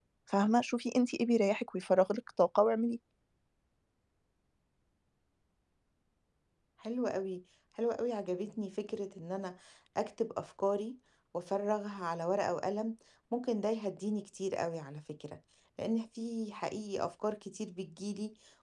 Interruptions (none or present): none